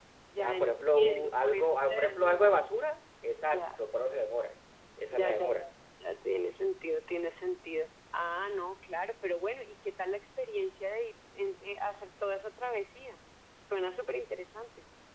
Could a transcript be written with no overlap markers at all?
No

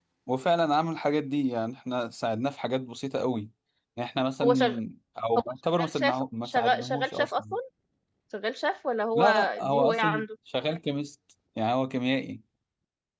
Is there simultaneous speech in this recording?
Yes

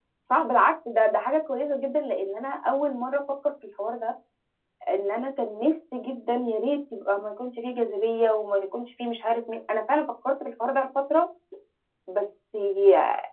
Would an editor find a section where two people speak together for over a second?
No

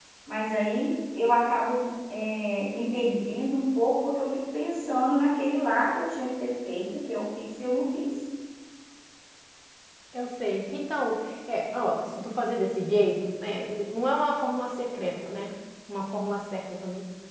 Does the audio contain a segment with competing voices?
No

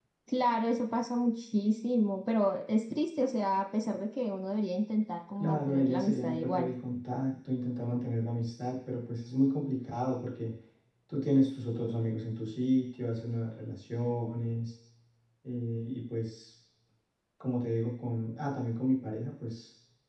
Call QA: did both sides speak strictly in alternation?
No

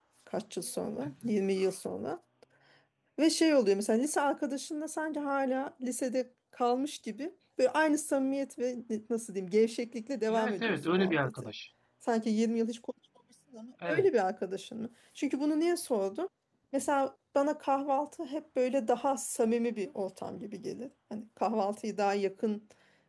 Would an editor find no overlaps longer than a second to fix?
No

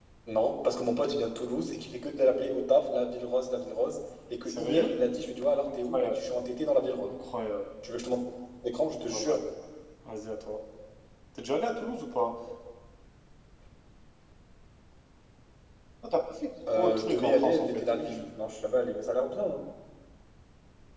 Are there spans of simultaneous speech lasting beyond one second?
Yes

